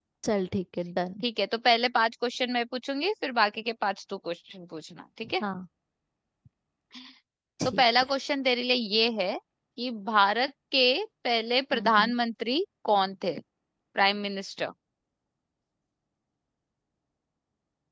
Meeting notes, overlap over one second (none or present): none